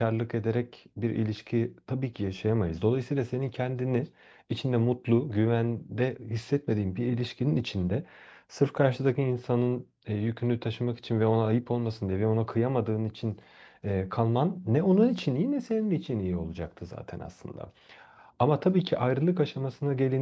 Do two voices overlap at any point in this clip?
No

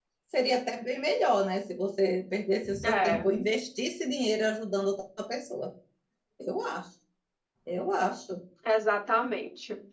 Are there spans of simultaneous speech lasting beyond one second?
No

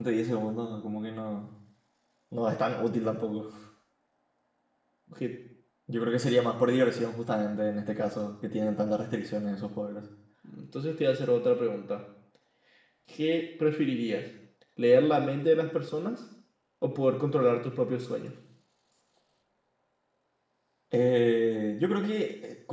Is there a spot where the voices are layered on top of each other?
No

